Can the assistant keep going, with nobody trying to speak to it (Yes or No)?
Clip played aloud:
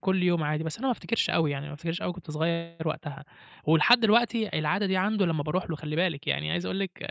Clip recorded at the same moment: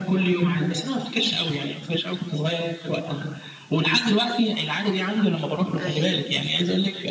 No